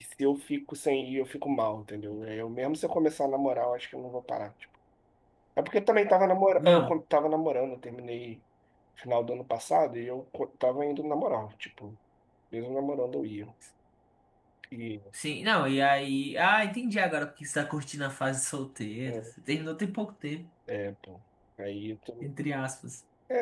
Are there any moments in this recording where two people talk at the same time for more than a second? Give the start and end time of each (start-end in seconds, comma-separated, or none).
none